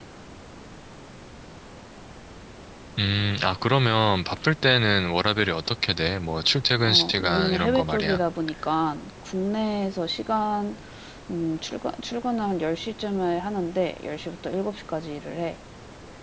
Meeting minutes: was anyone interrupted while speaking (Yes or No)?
Yes